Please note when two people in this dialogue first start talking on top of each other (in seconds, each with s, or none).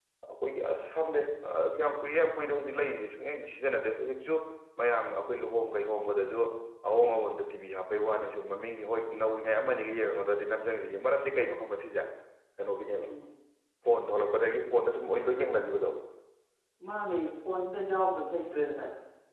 none